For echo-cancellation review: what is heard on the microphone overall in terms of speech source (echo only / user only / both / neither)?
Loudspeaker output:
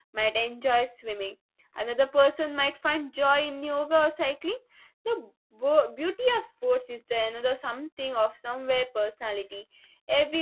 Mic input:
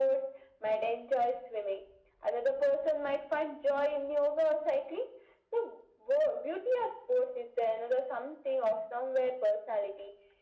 echo only